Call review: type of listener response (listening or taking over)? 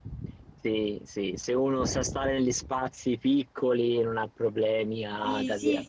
taking over